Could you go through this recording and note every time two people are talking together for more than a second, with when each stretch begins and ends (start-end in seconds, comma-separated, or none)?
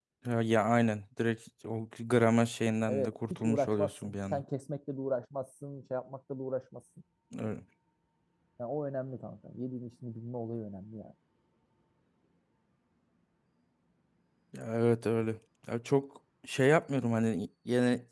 2.9-4.4